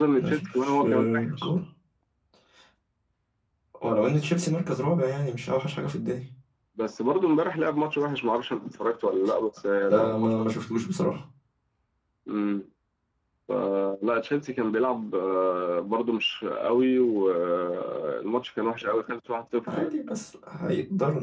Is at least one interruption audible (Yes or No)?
Yes